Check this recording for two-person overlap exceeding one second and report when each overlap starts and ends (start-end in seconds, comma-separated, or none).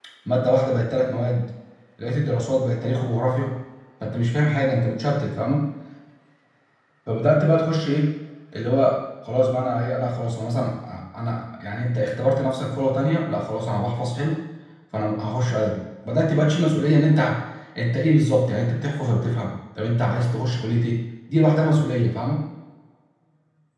none